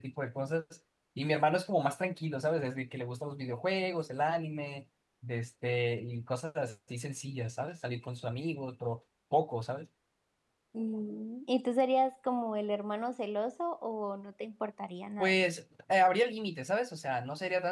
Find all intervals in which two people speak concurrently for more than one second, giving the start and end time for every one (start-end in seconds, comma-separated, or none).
none